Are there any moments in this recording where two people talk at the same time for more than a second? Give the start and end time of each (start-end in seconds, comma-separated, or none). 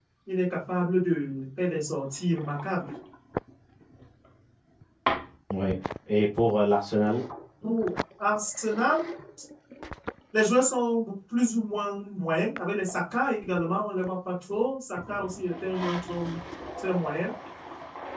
none